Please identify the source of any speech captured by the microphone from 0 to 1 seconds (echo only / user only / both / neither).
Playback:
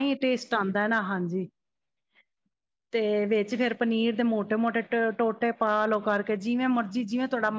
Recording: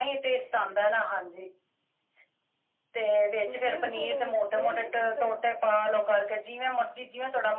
echo only